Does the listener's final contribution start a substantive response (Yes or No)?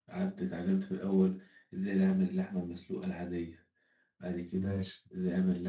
No